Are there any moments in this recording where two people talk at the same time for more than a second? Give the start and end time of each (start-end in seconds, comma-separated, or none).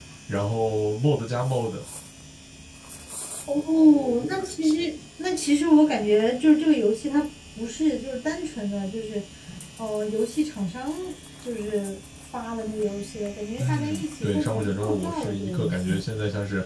13.6-16.0